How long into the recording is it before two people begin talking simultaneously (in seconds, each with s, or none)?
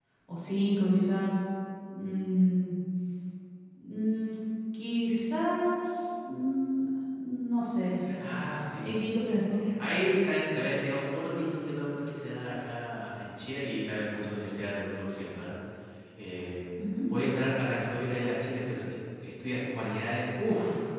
none